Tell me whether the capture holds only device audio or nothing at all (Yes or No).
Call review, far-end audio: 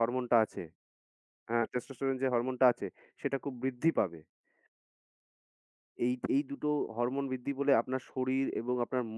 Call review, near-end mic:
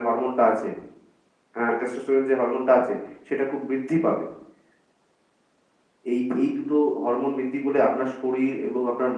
Yes